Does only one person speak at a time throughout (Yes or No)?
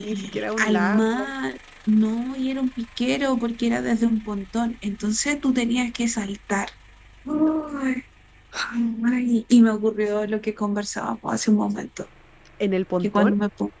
No